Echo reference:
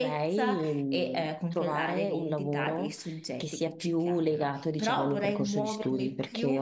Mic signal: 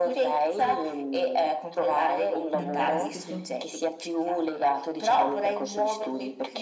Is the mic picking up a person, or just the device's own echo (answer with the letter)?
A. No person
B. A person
B